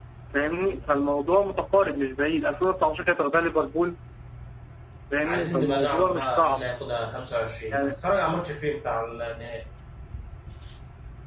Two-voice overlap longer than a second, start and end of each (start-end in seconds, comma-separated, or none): 5.2-6.6